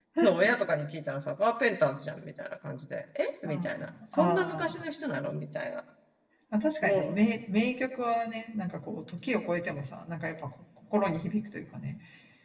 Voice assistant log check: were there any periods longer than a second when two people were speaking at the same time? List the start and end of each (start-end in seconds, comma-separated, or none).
3.4-4.7